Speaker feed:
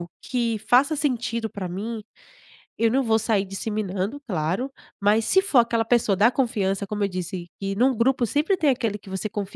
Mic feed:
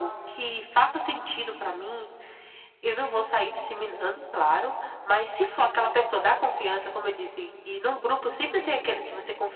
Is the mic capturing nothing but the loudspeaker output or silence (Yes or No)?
Yes